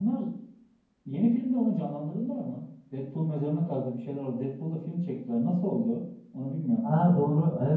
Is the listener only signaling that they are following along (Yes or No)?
No